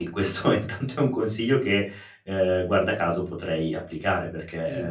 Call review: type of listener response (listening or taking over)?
listening